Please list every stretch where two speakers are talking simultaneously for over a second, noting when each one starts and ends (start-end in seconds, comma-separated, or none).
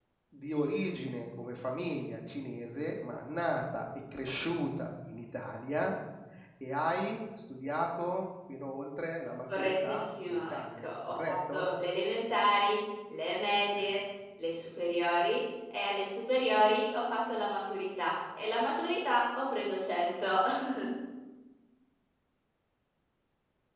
9.6-11.7